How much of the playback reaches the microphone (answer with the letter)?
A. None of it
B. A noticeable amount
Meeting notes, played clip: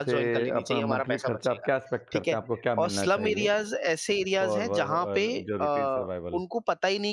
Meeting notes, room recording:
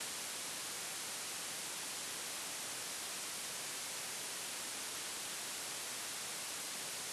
A